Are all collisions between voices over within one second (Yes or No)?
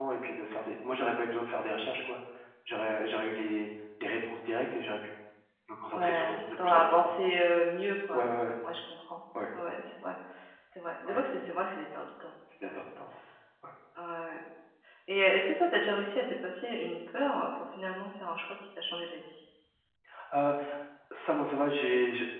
No